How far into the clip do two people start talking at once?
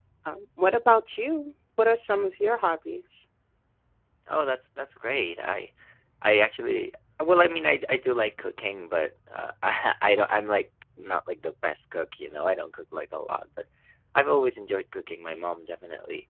none

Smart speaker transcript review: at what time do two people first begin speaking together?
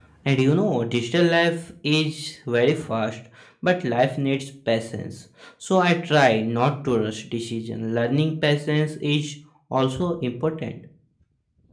none

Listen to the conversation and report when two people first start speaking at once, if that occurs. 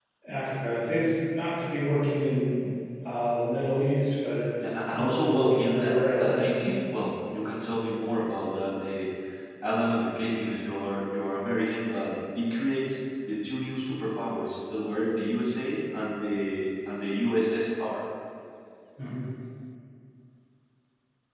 4.6 s

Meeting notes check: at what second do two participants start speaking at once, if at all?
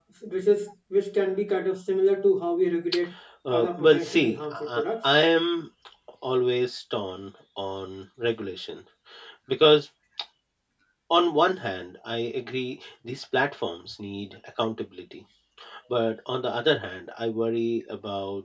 3.5 s

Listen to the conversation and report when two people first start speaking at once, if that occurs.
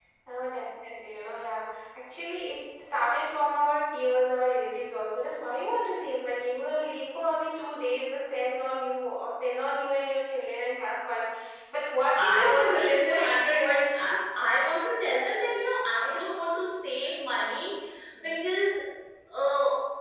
12.2 s

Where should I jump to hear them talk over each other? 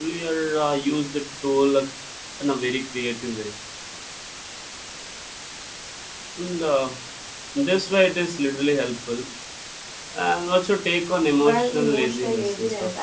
11.4 s

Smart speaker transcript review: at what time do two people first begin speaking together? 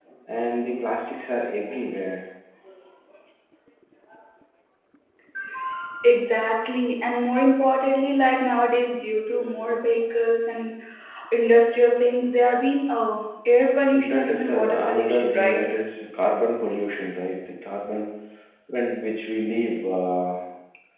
13.9 s

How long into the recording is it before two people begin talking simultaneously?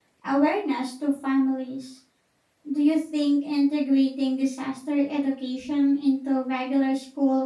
none

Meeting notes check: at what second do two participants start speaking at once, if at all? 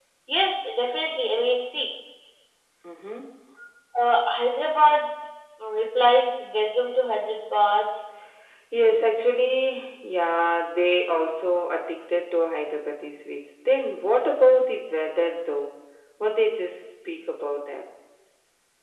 none

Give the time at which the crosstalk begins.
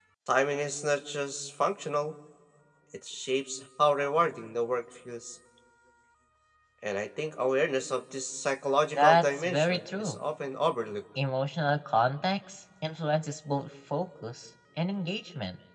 8.9 s

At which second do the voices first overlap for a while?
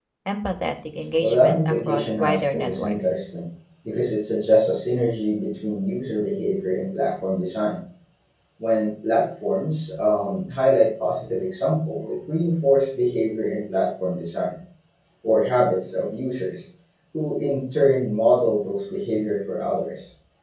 1.2 s

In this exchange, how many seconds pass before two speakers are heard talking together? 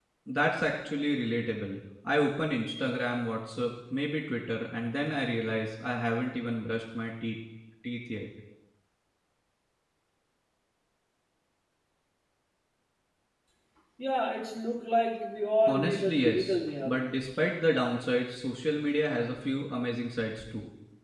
15.7 s

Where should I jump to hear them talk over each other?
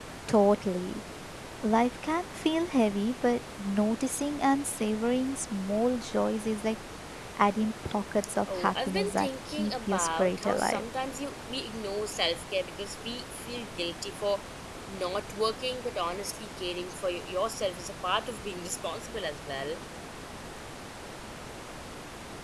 8.5 s

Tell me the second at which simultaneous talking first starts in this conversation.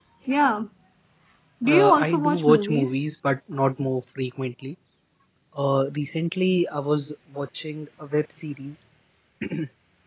1.7 s

